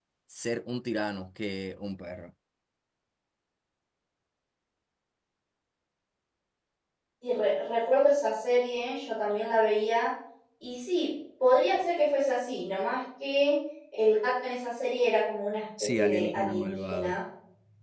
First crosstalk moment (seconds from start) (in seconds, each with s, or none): 15.8 s